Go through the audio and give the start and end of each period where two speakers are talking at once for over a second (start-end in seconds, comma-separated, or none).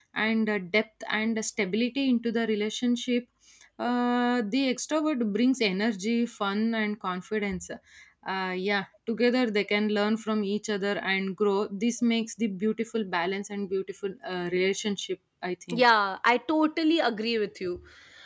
none